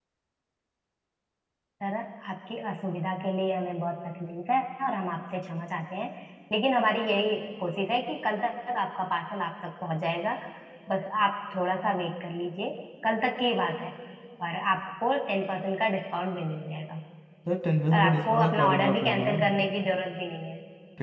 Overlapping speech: Yes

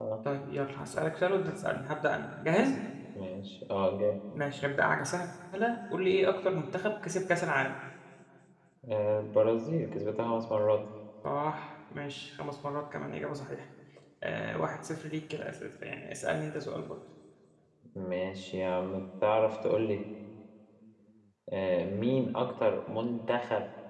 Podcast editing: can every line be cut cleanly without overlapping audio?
Yes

